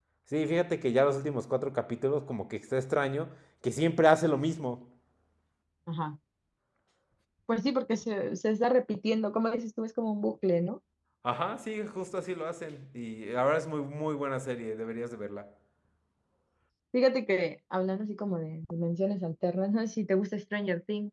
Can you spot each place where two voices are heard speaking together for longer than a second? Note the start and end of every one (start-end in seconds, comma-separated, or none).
none